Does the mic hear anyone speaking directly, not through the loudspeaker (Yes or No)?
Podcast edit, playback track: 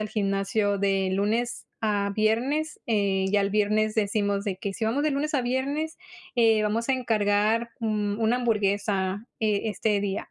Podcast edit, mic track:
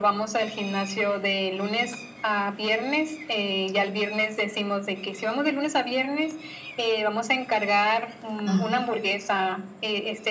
Yes